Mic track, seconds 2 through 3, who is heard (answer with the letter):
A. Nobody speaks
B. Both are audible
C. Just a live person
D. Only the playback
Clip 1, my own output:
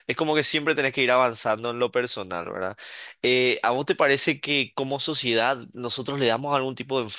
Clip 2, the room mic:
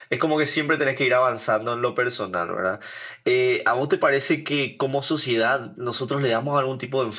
D